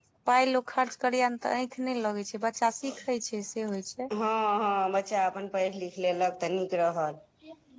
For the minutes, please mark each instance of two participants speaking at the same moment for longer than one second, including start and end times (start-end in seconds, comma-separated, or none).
none